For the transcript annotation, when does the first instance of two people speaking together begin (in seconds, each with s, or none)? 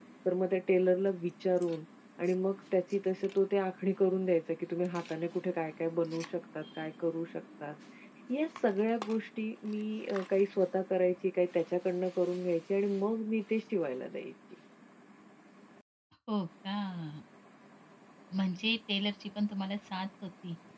none